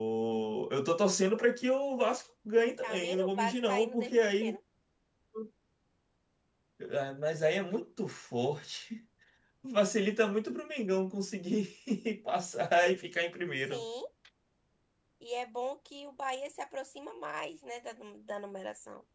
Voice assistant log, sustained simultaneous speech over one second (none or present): present